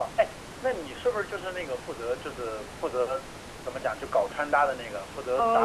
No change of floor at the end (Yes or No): No